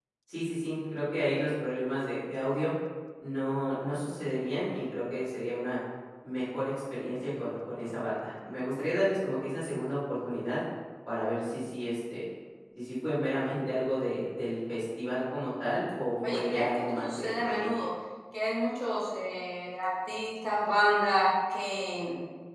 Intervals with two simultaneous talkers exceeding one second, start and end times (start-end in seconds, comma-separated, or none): 16.3-17.8